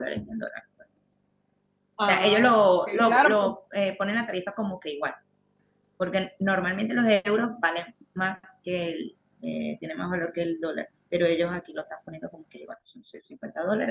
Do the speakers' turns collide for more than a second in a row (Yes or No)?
Yes